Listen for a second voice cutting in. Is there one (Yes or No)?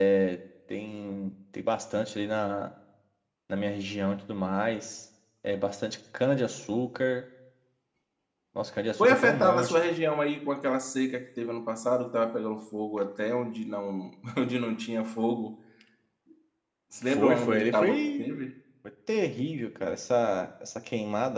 Yes